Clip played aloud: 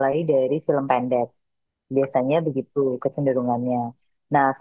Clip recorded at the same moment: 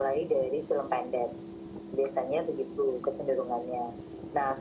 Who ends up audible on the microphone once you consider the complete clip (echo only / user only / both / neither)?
echo only